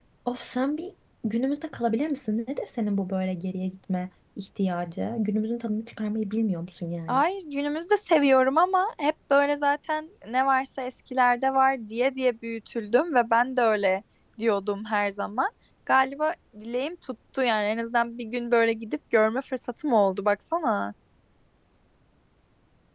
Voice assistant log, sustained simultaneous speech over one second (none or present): none